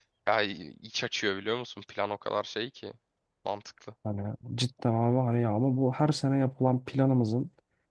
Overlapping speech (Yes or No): No